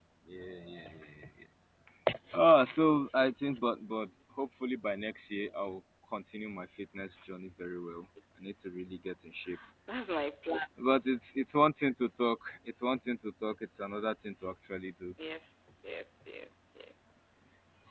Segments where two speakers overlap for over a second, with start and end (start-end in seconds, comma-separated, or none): none